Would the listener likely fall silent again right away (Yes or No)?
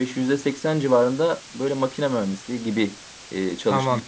No